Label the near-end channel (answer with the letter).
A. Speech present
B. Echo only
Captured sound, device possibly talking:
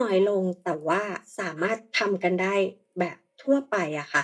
B